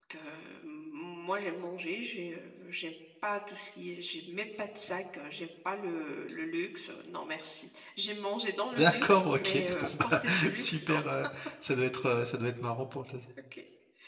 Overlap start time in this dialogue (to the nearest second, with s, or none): 9 s